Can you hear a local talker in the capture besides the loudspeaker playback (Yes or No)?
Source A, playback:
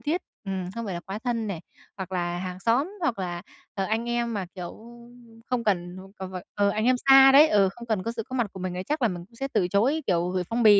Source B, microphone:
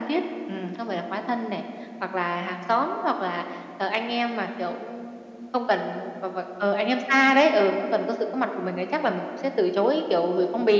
No